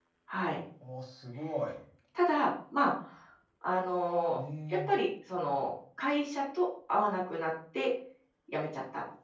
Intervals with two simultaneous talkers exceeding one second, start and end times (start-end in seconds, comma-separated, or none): none